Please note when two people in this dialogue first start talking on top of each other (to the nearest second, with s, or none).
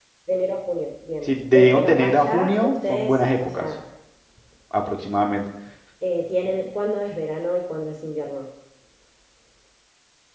1 s